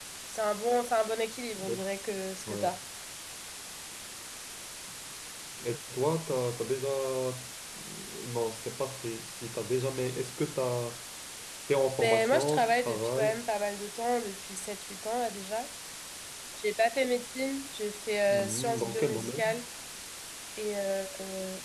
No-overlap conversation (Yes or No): No